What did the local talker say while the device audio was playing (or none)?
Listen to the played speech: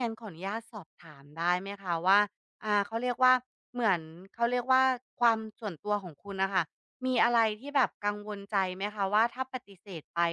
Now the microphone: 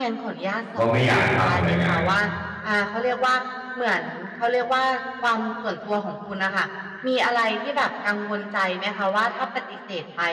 ว่าไม่อยากทำอะไรเงี้ย